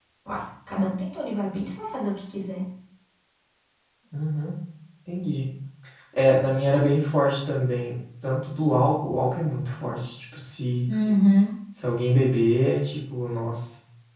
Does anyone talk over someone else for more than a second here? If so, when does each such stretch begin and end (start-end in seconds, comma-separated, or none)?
none